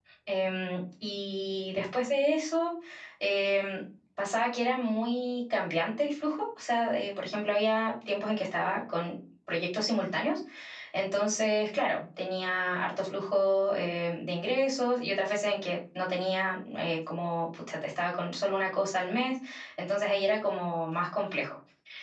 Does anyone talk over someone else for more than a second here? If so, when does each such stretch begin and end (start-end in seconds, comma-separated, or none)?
none